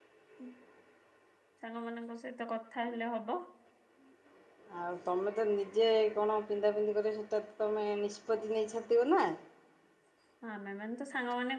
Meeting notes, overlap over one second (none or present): none